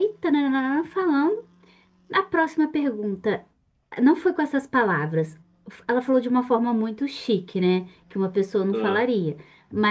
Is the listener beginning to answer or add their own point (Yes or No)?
No